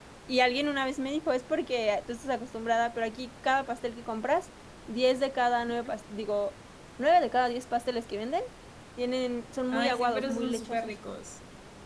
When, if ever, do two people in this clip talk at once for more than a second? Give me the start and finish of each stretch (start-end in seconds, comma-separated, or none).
9.7-10.9